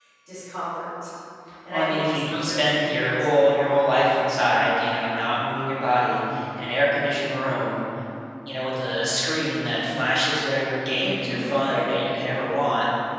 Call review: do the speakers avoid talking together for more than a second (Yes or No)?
No